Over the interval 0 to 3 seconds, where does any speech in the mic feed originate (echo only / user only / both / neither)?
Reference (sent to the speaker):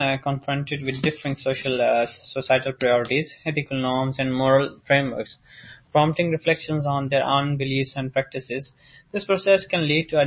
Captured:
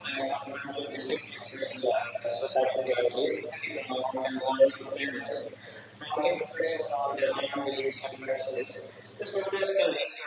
echo only